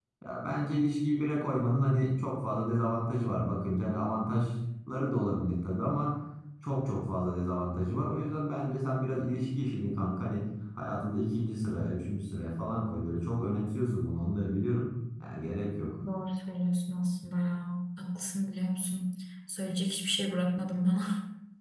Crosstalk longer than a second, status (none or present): none